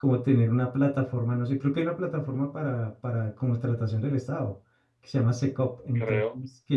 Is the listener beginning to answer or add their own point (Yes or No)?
No